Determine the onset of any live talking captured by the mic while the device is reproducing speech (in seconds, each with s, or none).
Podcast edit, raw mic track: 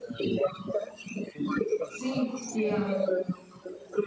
1.9 s